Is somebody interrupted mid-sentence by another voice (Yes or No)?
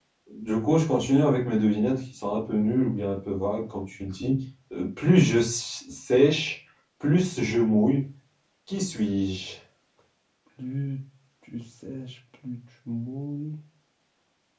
No